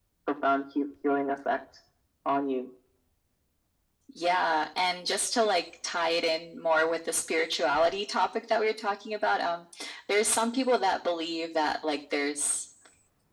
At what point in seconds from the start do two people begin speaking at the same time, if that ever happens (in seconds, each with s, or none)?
none